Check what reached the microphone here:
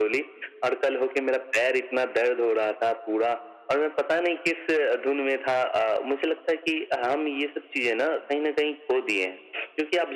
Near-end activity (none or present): none